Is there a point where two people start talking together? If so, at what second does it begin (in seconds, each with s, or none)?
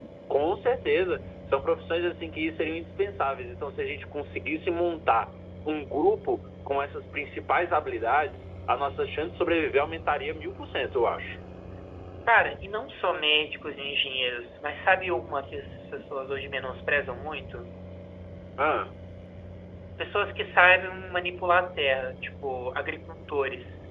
none